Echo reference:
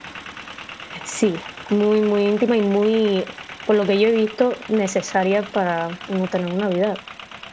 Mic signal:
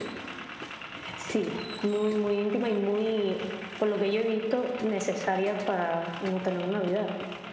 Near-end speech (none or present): none